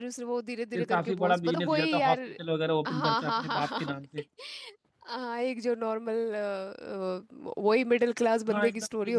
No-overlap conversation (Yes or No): No